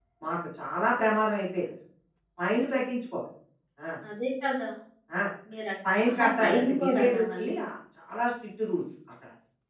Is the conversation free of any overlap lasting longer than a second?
No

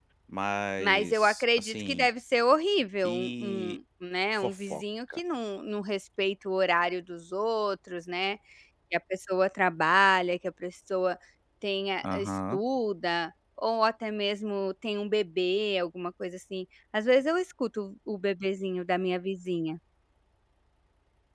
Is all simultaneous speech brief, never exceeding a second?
No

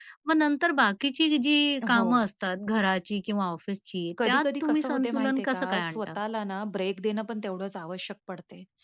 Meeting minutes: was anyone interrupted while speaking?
Yes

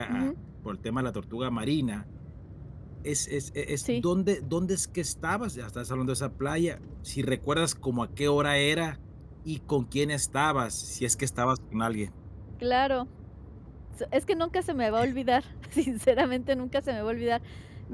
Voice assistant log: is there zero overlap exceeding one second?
Yes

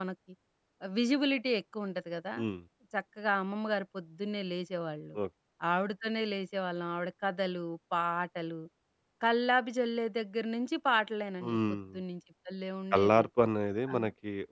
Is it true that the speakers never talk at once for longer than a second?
Yes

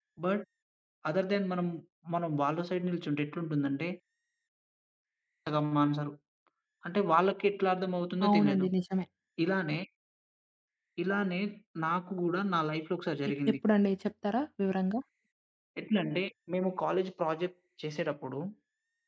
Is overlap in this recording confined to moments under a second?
Yes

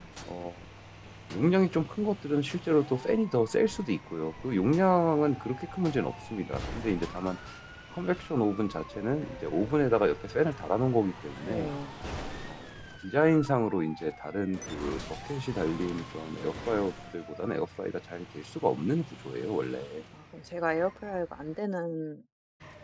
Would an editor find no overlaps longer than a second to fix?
Yes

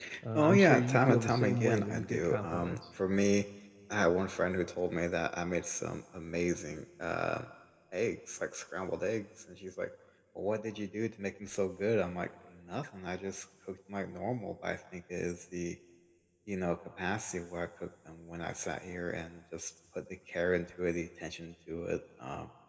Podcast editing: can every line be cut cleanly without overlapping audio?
No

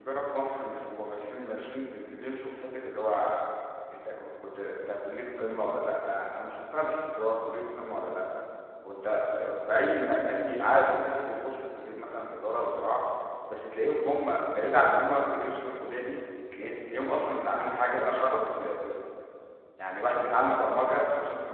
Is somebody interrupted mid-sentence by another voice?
No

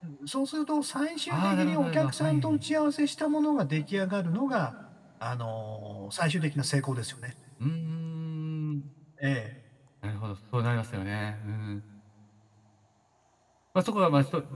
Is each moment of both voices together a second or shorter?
No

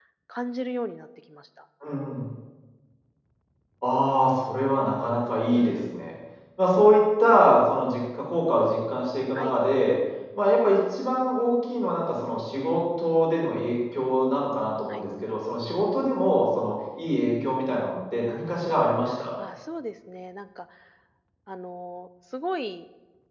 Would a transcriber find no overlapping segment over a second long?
Yes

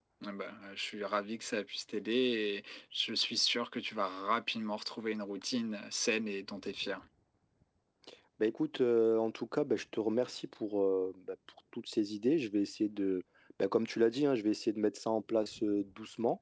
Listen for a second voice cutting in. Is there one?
No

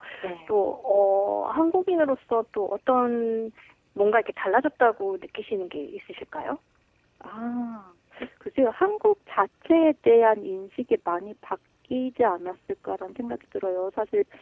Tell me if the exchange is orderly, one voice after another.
Yes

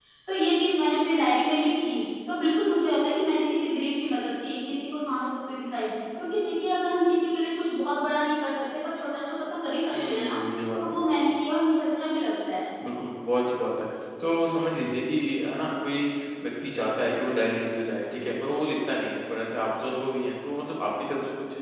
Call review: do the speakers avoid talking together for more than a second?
Yes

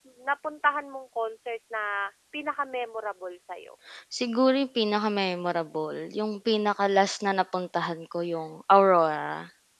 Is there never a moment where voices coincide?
Yes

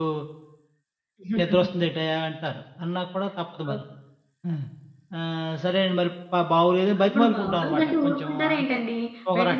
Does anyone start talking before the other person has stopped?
Yes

